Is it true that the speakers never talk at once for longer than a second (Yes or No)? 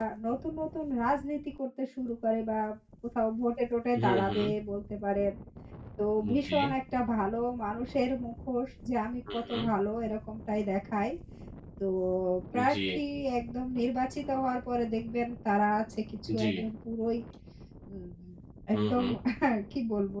Yes